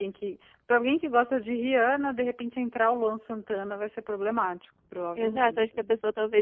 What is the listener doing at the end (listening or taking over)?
taking over